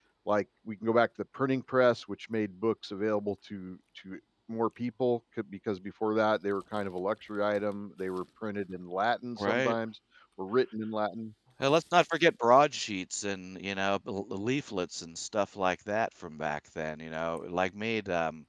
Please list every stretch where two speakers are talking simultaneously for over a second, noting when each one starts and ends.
none

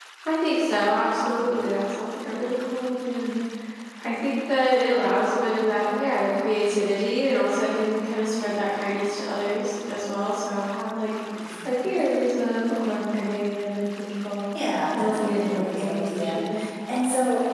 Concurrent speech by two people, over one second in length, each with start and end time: 14.9-16.4

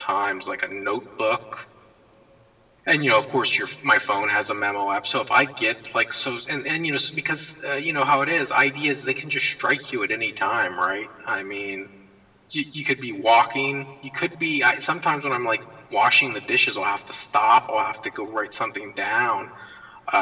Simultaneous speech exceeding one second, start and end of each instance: none

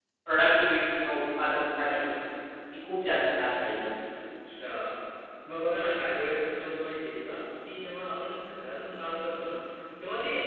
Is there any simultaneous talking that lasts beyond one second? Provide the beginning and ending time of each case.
none

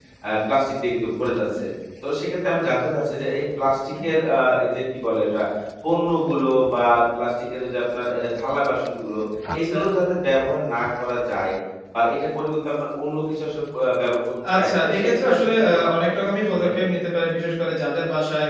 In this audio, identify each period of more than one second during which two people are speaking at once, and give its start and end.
14.6-16.1

